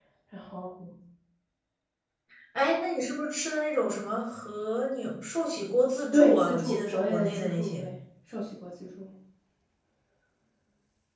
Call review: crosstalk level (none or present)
present